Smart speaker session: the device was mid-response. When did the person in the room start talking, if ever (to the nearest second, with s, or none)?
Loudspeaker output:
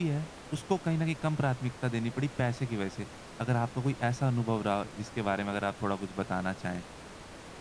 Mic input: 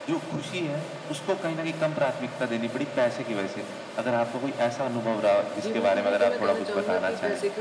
6 s